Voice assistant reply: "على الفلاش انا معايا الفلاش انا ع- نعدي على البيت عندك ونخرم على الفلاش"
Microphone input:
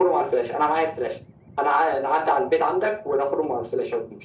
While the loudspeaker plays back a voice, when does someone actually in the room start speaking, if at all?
none

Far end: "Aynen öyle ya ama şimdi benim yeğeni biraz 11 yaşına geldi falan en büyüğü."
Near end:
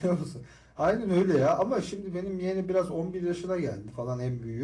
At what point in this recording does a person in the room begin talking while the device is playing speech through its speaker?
none

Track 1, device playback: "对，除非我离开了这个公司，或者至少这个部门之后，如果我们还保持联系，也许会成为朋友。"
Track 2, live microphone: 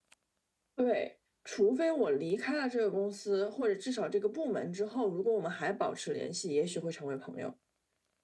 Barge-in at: none

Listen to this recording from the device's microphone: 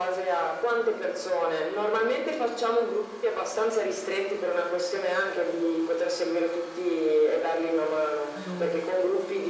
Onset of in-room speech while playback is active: 8.3 s

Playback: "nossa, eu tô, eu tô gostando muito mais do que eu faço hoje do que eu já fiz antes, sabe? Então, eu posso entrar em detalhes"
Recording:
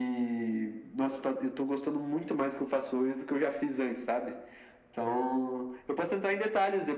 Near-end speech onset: none

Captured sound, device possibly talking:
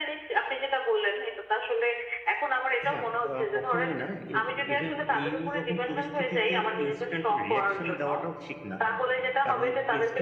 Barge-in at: 2.9 s

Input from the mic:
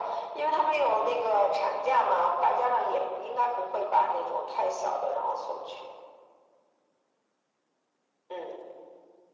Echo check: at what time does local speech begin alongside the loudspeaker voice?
none

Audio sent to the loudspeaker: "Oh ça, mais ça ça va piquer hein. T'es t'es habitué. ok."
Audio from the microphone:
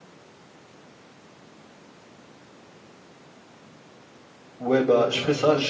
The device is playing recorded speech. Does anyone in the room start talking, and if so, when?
4.6 s

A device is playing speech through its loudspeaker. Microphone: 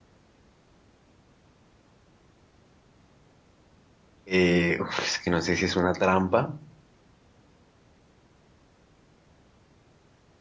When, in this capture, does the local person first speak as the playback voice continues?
4.3 s

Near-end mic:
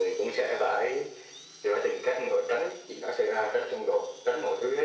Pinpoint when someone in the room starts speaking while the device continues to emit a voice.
none

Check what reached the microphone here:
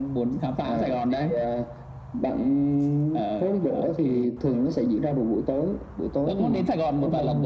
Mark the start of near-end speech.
none

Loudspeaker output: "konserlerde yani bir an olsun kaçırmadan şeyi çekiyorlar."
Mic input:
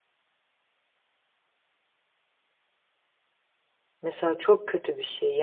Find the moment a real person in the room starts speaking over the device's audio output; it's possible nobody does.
4.0 s

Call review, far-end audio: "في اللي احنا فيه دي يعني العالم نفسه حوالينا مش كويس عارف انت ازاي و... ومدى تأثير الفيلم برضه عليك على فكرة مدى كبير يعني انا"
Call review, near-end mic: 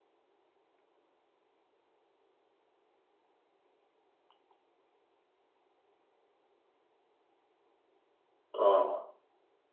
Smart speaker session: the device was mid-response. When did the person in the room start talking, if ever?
8.6 s

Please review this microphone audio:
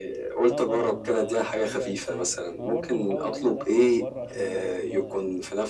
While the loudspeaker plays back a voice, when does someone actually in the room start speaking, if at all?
0.5 s

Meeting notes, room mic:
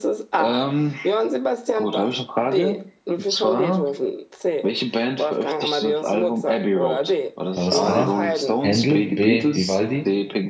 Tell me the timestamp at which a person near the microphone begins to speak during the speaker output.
7.5 s

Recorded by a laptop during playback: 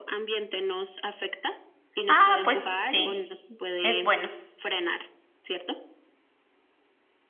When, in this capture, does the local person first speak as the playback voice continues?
2.1 s

